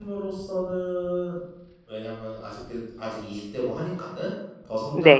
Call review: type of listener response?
listening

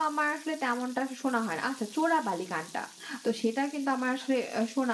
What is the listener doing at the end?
listening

